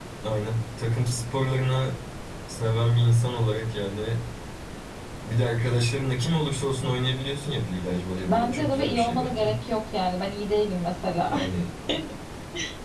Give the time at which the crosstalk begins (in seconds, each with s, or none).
8.3 s